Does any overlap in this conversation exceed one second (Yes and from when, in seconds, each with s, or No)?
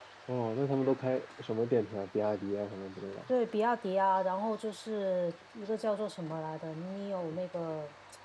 No